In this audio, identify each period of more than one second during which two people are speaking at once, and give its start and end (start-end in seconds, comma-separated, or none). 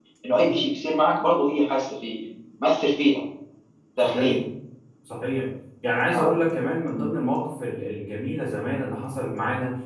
none